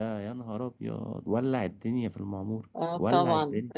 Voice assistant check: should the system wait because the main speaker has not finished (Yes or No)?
No